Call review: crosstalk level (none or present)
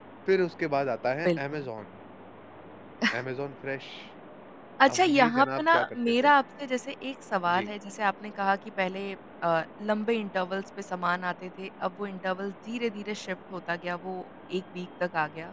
present